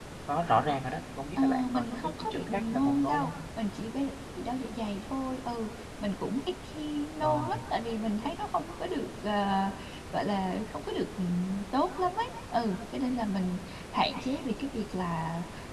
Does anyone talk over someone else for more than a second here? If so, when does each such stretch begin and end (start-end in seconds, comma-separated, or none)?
1.4-3.3